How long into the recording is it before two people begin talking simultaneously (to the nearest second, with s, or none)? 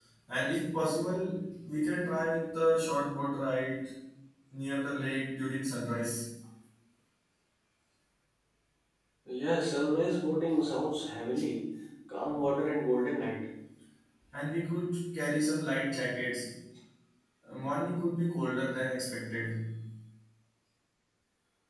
none